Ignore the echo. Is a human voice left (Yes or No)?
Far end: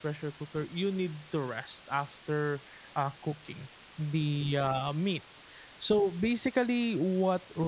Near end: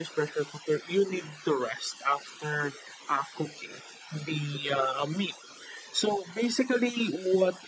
No